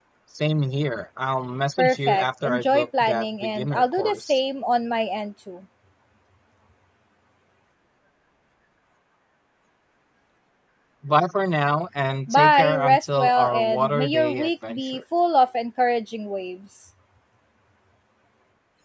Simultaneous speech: Yes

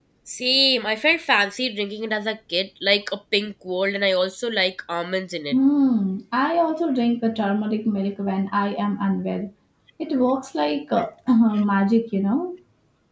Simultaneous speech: No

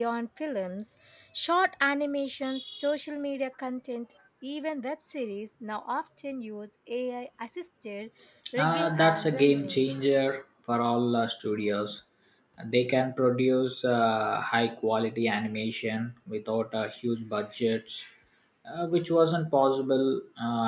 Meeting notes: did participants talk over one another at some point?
Yes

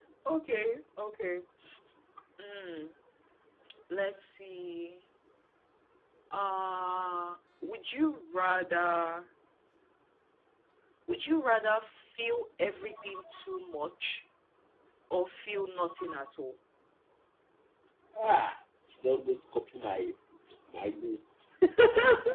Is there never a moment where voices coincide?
Yes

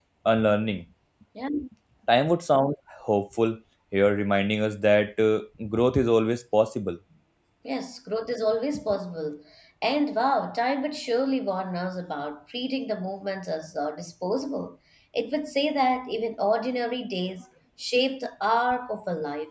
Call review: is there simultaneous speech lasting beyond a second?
No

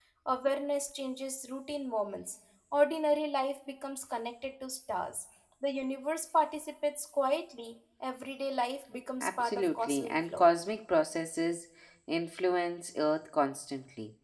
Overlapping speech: Yes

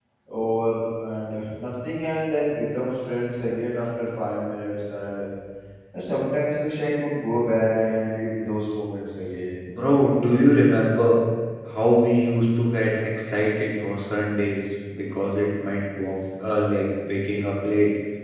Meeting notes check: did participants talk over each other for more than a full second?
No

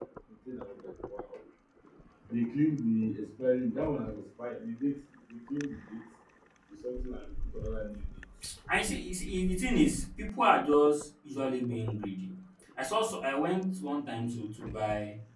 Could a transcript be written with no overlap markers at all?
Yes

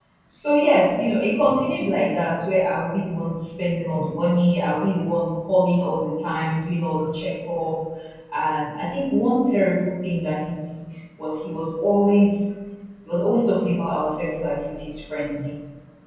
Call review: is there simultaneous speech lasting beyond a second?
No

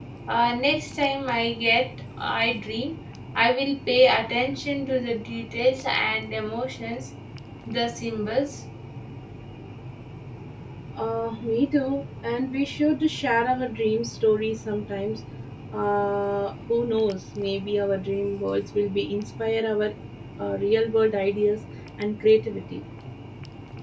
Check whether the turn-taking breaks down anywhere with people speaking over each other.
No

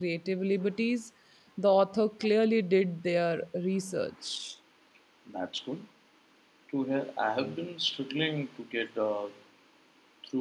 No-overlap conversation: Yes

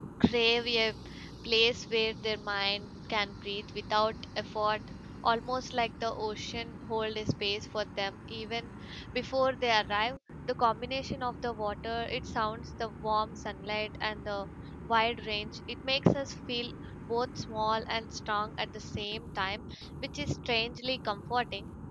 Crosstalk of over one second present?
No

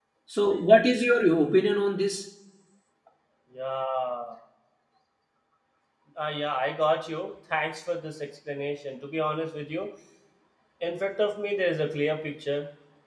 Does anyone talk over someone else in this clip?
No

